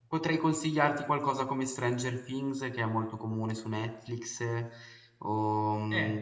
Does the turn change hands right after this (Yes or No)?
Yes